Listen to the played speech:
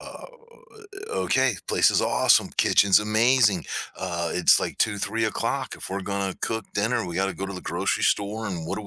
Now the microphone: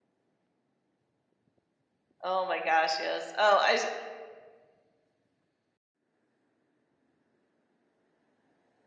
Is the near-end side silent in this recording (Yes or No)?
No